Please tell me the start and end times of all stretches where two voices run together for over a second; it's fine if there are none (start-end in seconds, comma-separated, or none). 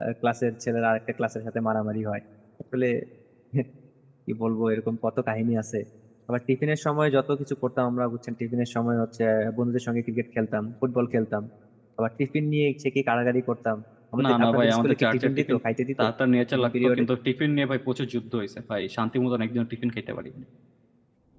14.2-15.6